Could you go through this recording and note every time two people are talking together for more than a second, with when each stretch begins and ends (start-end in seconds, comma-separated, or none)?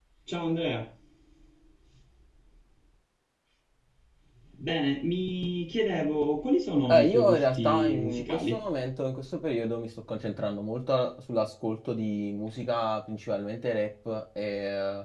6.9-8.6